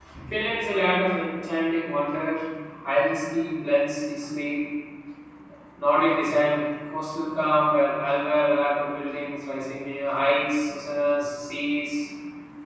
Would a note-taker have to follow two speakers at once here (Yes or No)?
No